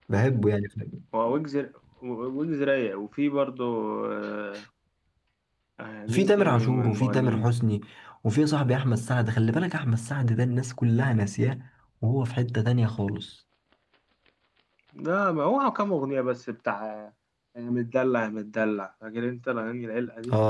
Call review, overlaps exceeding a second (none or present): present